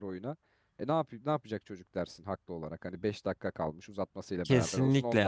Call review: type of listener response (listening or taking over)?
taking over